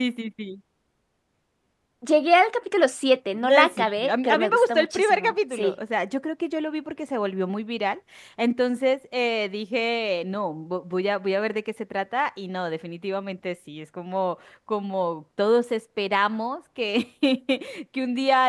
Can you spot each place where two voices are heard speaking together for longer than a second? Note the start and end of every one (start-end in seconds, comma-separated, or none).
3.3-5.7